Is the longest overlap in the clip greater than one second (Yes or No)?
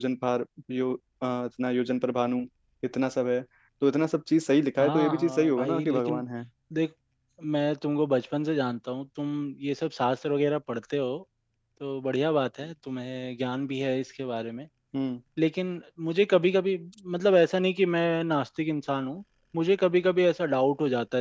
Yes